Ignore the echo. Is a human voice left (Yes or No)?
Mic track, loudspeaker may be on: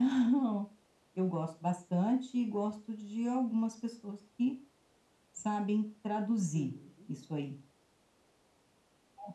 Yes